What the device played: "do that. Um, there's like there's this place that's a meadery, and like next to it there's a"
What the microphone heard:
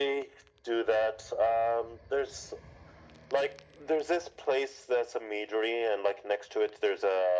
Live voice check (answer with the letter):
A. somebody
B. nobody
B